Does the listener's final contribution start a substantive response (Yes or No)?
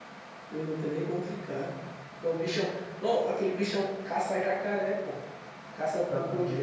No